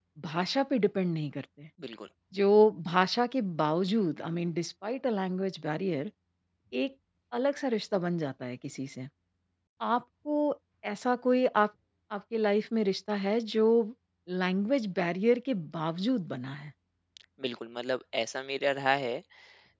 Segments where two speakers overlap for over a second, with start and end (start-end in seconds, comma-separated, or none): none